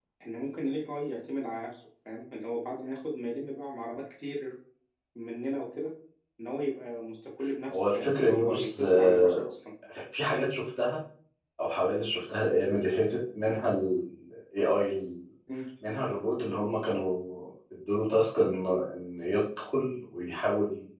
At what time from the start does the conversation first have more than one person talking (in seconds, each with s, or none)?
7.7 s